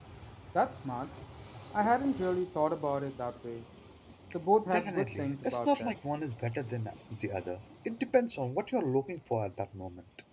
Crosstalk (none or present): present